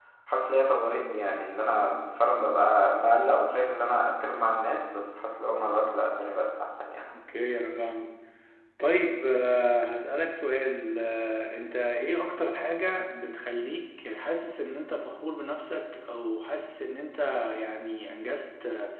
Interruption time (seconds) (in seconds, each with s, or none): none